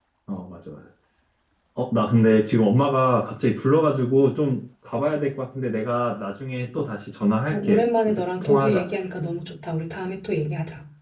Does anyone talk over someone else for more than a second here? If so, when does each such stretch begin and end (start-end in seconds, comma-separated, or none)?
7.5-8.9